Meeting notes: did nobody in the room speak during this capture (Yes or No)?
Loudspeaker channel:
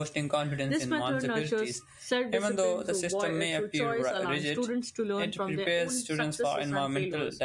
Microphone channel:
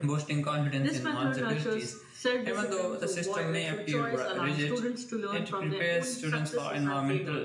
Yes